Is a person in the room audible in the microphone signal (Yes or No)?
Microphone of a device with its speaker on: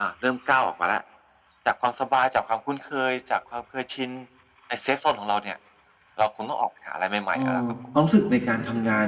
Yes